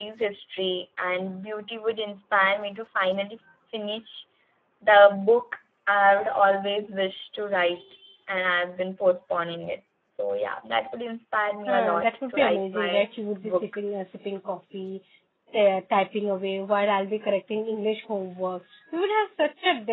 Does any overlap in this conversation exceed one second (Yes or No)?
Yes